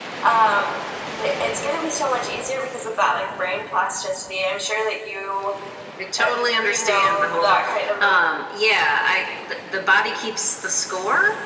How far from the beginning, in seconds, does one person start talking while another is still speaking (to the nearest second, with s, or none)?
6 s